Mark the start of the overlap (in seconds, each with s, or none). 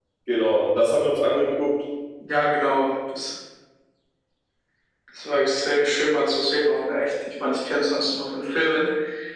none